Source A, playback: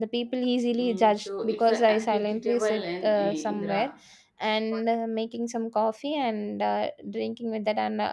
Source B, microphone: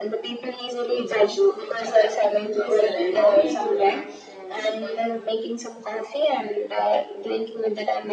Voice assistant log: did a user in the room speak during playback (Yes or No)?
Yes